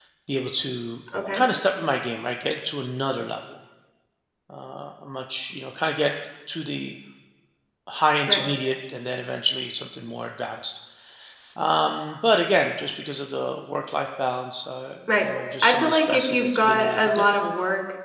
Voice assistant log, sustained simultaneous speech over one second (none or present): present